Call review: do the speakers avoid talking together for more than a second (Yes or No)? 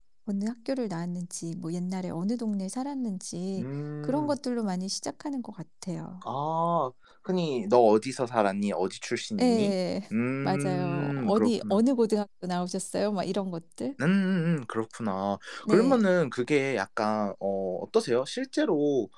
No